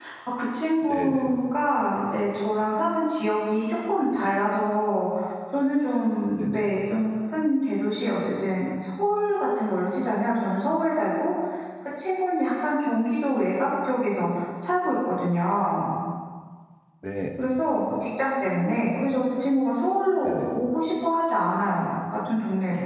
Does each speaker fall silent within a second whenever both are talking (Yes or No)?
Yes